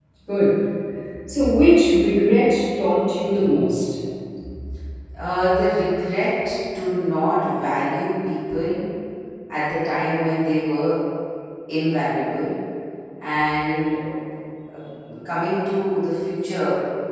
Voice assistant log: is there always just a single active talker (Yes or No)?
Yes